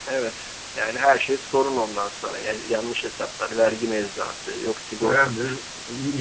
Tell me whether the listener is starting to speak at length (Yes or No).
Yes